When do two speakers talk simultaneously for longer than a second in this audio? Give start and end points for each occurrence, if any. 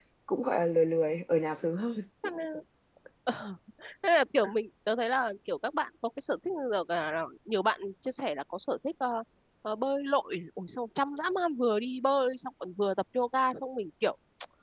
none

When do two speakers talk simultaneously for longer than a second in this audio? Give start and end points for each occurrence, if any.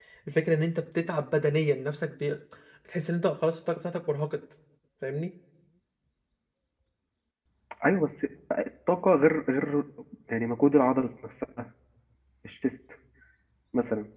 none

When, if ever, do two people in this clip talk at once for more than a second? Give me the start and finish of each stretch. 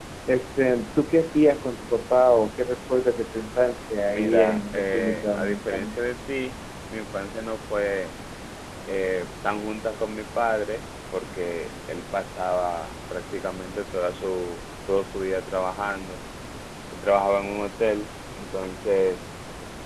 4.1-6.0

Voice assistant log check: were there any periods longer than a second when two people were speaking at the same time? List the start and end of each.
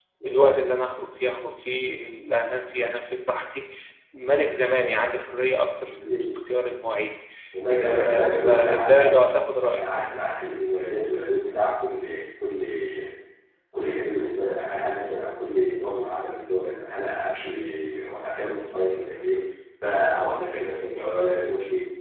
7.8-9.3

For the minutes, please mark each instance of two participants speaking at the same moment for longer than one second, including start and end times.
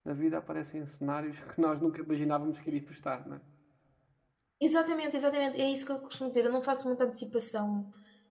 none

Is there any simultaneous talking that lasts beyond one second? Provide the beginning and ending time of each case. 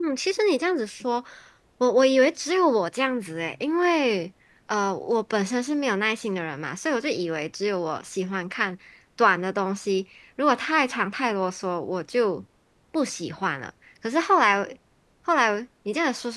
none

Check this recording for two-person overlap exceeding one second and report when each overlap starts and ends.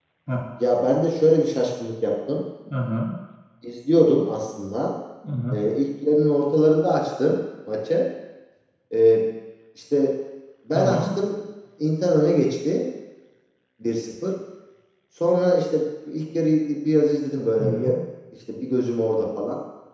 none

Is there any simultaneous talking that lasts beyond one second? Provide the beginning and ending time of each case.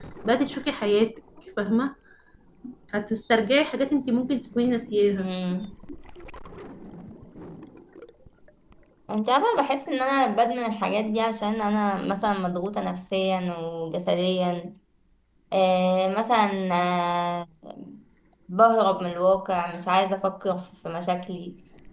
none

